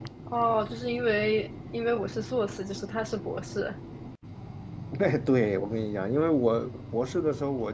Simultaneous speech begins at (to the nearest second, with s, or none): none